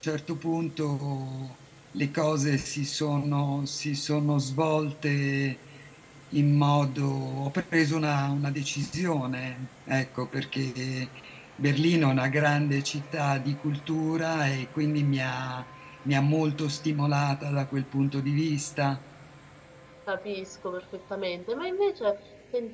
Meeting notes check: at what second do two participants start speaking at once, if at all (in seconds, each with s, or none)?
none